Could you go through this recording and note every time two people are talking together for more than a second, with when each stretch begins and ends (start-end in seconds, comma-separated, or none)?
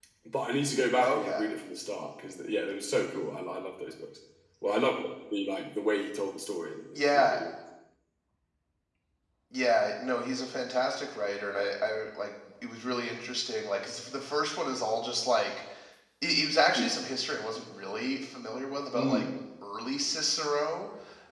none